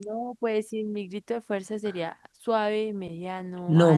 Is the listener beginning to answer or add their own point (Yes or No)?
Yes